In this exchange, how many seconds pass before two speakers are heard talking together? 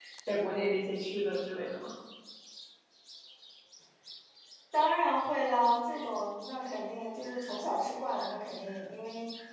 none

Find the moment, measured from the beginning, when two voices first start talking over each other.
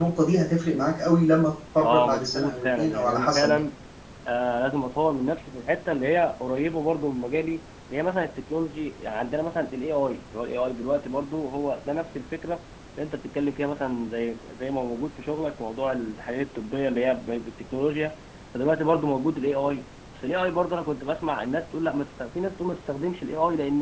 2 s

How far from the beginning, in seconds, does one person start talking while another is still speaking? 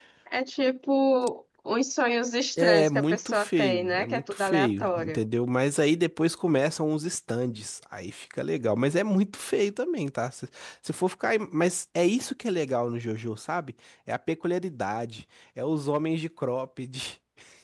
3 s

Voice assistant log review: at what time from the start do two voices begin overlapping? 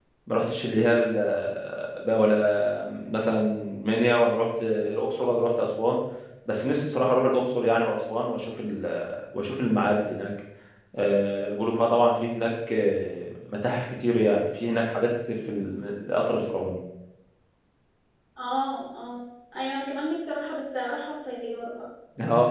none

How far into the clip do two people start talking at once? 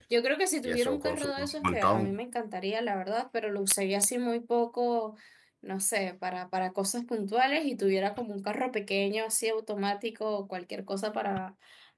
1 s

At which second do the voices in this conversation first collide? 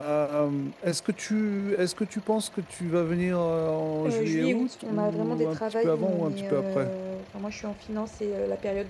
4 s

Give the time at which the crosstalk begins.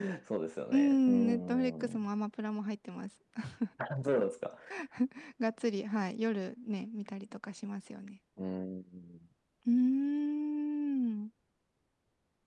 1 s

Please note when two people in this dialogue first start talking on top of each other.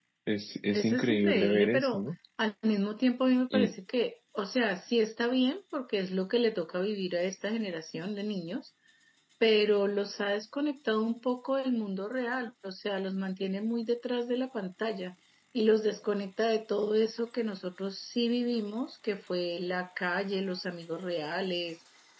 1 s

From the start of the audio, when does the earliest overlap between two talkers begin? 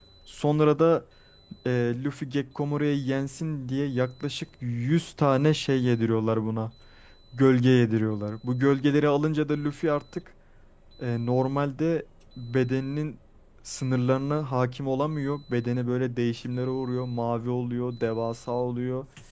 none

